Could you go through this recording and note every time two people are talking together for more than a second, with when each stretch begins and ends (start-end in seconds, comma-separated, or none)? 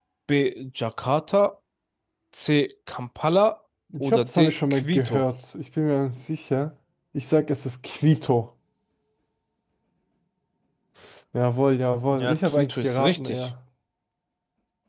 4.0-5.2, 12.1-13.5